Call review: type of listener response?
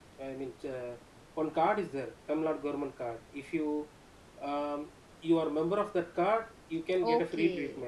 taking over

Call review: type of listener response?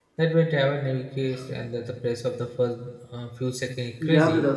taking over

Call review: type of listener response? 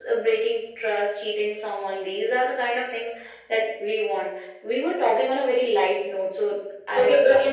taking over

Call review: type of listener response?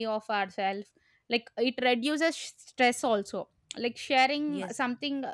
listening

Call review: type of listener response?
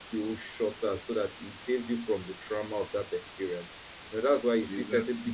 listening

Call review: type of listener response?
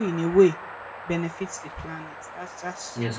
taking over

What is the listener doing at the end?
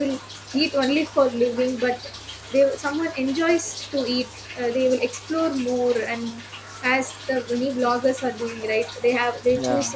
listening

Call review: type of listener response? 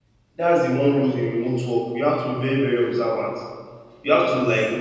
listening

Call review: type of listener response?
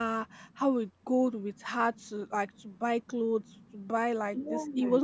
listening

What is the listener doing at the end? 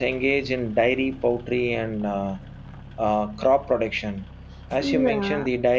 listening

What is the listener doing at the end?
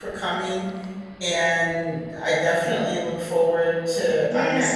taking over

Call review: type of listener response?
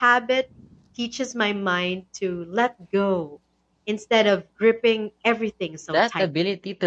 taking over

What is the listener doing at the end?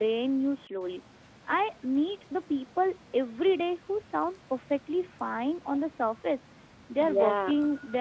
listening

